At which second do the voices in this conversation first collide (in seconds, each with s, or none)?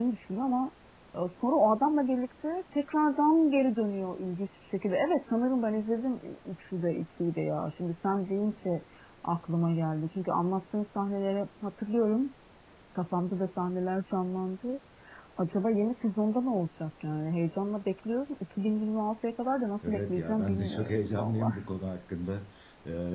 19.8 s